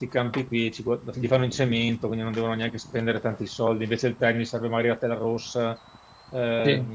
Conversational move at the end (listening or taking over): listening